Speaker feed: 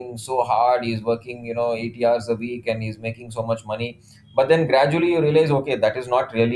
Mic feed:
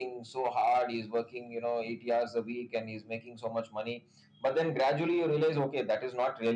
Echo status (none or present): present